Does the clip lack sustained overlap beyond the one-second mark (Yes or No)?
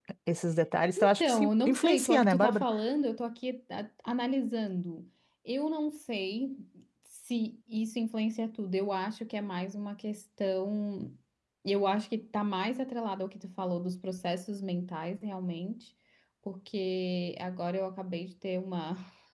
No